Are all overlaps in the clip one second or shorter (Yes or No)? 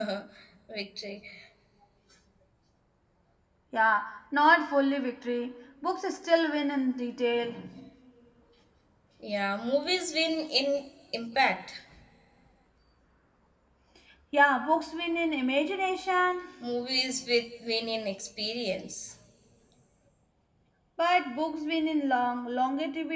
Yes